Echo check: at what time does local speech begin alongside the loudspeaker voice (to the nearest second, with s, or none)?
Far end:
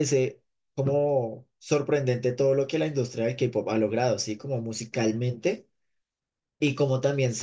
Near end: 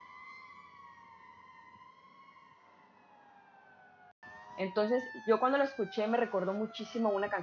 5 s